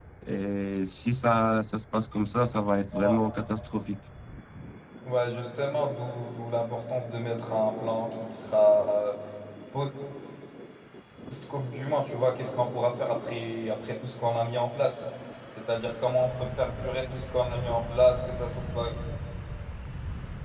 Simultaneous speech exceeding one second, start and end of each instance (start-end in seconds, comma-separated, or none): none